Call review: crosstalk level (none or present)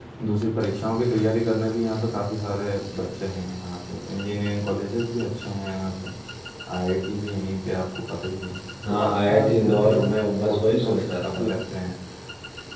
present